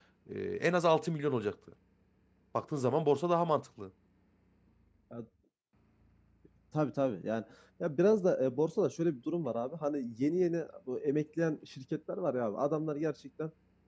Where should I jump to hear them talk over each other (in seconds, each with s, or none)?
none